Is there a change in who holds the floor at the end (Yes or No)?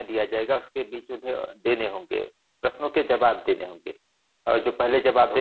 No